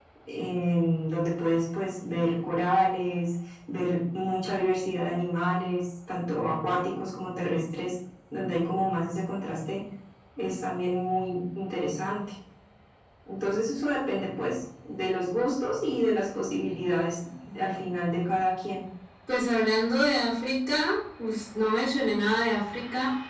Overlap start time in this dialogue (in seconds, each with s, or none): none